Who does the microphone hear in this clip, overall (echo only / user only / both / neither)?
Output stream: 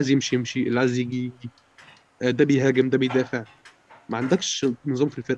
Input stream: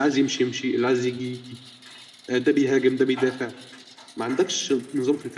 echo only